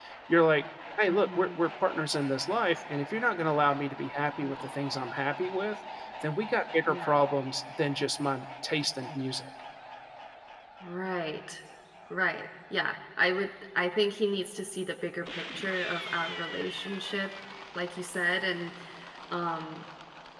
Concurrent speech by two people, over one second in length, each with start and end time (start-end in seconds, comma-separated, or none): none